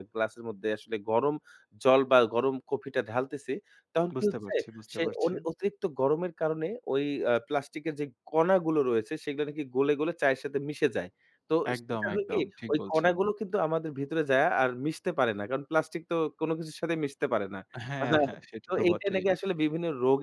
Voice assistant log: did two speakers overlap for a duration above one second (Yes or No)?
Yes